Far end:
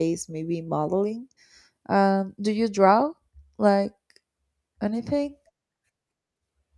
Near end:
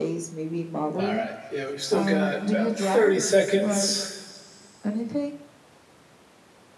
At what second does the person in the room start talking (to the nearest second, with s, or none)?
1 s